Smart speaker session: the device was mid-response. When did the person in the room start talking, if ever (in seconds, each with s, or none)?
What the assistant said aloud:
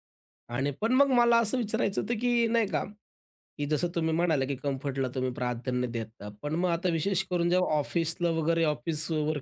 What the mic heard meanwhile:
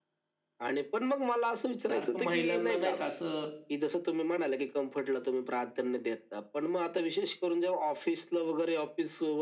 1.9 s